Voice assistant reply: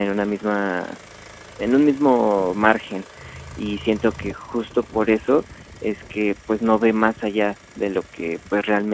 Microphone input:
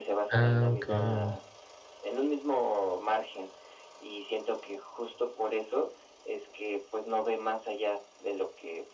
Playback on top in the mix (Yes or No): No